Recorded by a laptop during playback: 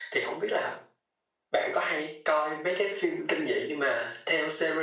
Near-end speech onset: none

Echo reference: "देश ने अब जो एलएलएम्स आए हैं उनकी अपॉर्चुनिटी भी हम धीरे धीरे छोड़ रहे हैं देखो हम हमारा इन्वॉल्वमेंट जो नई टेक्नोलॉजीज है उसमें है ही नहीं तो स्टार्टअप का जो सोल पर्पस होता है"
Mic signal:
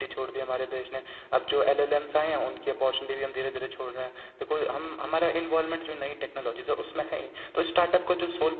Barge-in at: none

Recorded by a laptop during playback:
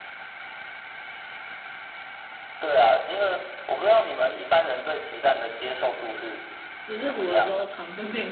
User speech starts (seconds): 6.8 s

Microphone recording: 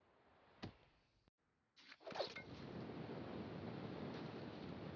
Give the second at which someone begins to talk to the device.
none

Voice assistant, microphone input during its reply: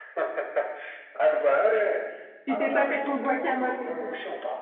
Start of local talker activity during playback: 2.5 s

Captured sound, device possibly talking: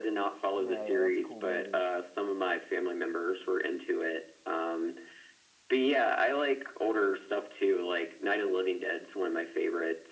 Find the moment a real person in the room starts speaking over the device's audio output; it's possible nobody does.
0.6 s

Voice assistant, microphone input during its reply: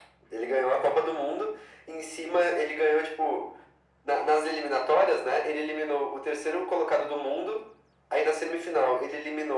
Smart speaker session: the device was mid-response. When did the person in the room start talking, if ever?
none

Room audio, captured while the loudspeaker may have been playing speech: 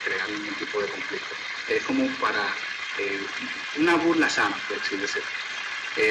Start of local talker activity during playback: none

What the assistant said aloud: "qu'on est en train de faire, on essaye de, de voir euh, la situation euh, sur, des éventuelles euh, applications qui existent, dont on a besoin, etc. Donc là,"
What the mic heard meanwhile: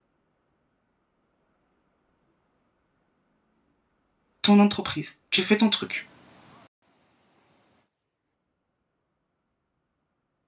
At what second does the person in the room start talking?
4.4 s

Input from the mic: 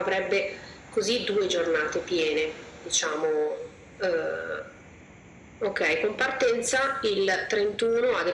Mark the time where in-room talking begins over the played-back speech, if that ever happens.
none

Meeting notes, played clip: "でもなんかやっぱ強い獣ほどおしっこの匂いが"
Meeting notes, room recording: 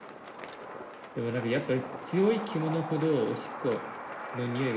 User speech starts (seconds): none

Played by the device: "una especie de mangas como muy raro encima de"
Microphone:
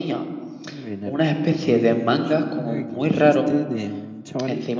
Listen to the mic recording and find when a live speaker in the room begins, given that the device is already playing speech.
0.6 s

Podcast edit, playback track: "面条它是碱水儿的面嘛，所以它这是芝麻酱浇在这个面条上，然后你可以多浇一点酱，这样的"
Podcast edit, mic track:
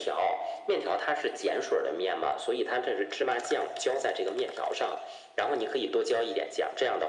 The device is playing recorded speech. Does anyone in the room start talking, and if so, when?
none

